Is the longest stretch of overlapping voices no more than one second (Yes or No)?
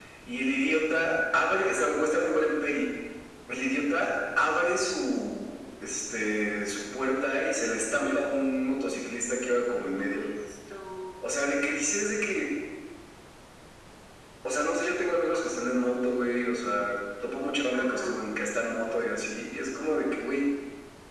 Yes